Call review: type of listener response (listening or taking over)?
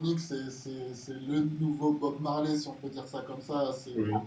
listening